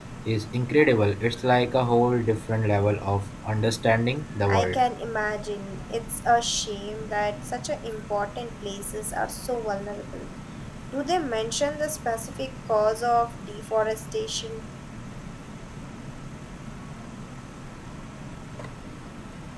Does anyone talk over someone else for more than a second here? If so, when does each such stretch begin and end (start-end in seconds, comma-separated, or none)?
none